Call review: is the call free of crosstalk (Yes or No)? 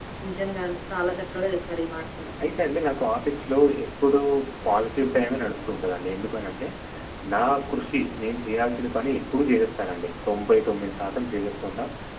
Yes